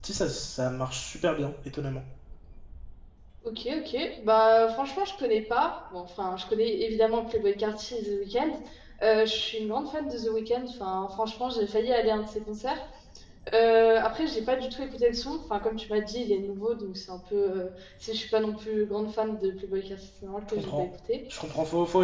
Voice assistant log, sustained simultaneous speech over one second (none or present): none